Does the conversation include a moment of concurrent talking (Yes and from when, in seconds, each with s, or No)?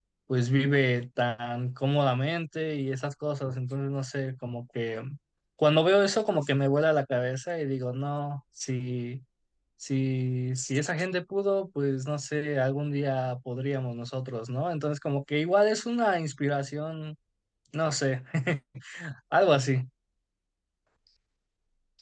No